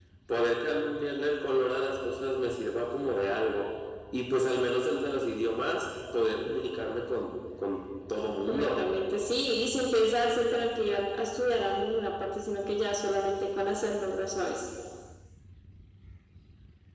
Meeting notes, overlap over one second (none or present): none